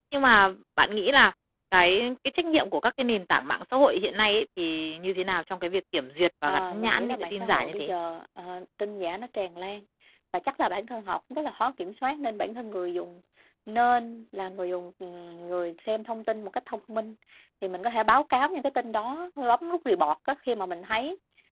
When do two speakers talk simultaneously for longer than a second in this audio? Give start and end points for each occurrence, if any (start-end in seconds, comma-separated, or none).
6.5-7.9